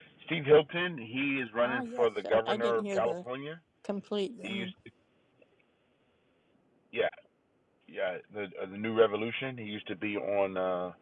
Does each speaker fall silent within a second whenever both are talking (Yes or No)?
No